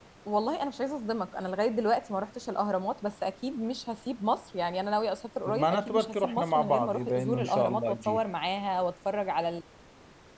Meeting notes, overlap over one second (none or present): present